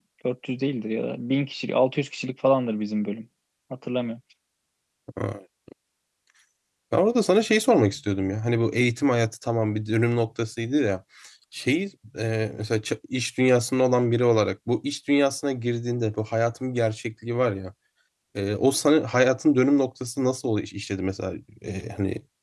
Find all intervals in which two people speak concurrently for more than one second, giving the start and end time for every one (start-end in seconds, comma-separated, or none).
none